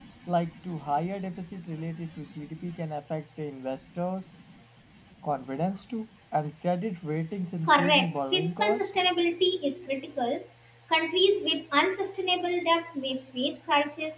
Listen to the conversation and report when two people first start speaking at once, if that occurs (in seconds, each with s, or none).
7.7 s